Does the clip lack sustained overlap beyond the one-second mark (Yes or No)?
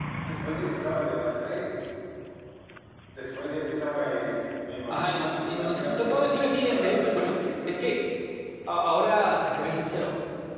No